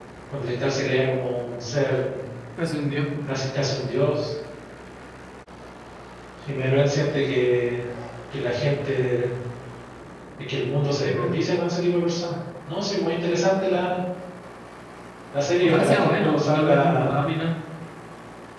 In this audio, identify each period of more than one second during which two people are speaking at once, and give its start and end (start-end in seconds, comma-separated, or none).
15.6-17.2